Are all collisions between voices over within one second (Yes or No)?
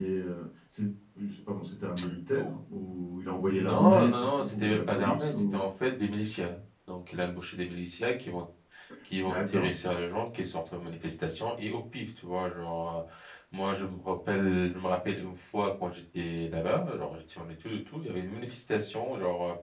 No